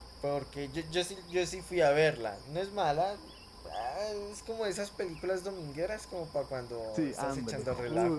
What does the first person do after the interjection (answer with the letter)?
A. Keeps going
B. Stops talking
B